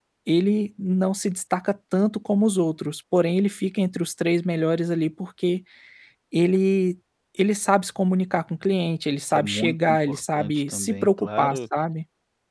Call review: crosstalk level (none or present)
present